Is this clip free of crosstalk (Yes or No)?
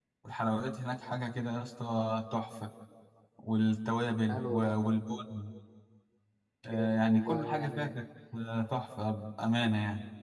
No